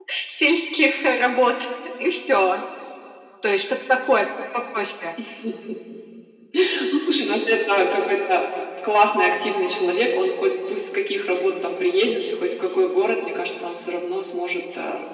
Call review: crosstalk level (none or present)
none